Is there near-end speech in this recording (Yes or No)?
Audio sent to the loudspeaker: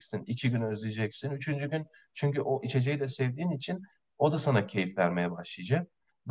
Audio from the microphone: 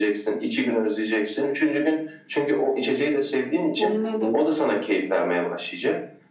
Yes